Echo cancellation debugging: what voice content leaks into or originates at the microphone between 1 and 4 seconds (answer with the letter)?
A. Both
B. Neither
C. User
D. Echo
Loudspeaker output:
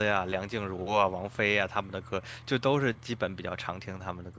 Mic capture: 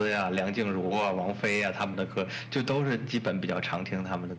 D